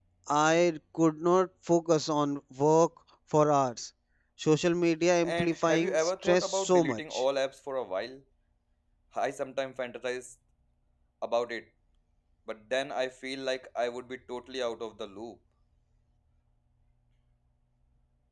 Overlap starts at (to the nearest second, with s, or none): 5 s